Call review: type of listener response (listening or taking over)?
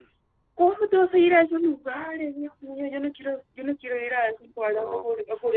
listening